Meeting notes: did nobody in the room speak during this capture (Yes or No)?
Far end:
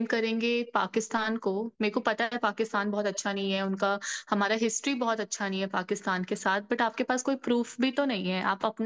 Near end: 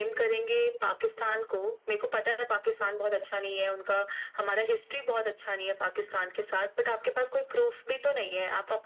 Yes